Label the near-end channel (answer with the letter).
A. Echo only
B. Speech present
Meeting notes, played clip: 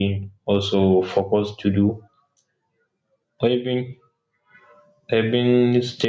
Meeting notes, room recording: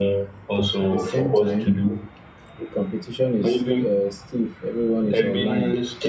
B